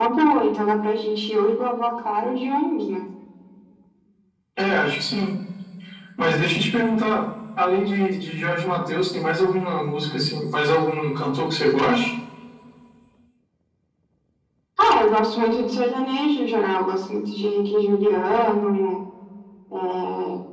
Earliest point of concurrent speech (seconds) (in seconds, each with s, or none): none